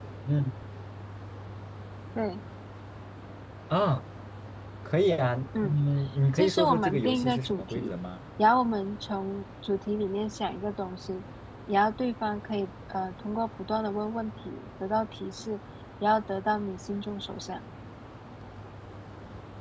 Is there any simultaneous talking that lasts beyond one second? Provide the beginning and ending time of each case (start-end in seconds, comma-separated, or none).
6.3-7.9